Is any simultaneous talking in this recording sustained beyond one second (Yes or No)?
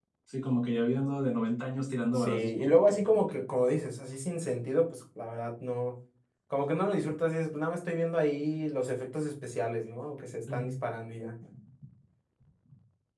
Yes